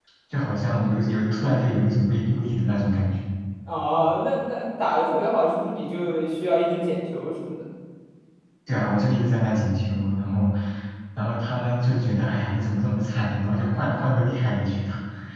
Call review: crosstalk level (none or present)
none